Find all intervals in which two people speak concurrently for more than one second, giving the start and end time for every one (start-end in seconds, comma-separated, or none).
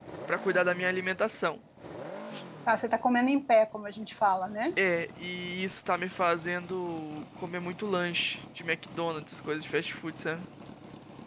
none